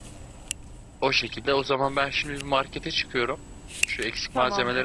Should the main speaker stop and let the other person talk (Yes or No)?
No